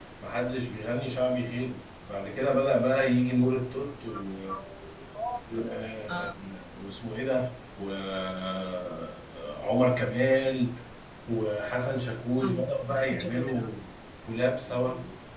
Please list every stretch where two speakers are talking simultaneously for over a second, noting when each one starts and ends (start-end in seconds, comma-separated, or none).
12.4-13.7